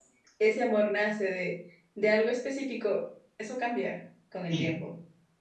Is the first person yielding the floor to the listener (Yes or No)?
Yes